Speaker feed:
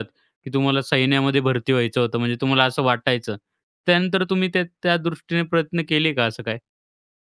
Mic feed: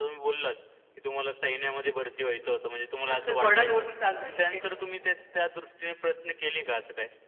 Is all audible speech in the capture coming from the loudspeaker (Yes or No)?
No